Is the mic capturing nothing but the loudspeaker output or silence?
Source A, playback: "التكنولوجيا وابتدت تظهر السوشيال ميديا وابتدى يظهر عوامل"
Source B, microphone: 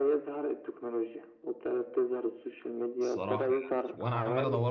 No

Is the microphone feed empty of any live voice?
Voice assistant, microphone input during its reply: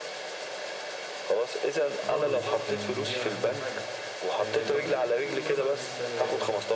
No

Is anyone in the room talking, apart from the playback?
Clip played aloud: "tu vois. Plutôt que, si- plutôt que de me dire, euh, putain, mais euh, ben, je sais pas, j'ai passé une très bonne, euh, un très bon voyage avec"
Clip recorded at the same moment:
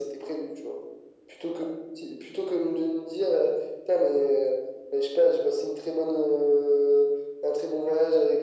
No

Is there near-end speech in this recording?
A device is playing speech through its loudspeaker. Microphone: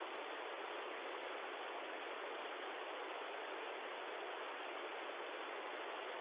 No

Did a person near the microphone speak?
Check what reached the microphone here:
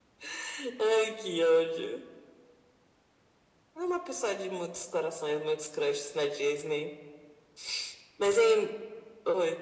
No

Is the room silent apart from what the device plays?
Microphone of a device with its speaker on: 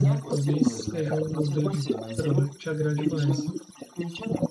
No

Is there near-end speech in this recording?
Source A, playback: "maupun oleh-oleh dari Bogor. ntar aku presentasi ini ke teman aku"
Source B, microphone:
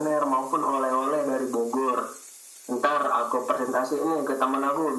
No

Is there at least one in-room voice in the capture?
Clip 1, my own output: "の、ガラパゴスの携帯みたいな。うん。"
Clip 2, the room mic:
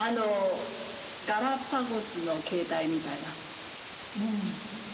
No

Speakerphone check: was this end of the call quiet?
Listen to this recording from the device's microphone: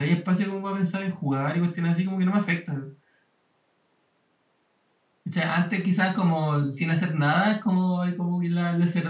No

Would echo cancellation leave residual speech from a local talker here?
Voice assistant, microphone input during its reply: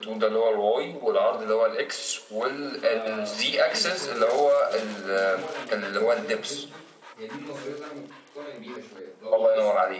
Yes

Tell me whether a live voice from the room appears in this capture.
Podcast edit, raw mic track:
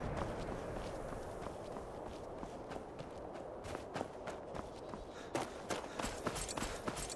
No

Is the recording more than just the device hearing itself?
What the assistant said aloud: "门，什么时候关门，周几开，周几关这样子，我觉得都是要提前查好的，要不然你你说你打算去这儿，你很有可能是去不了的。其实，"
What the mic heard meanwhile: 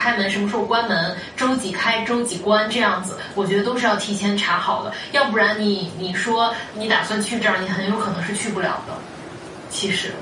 No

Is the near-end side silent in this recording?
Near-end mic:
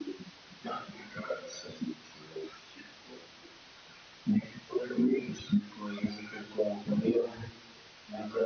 Yes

